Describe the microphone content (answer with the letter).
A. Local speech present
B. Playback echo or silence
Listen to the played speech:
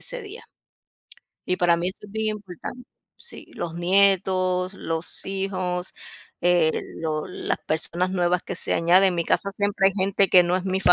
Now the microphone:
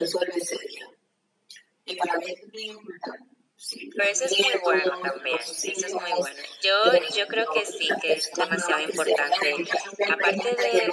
A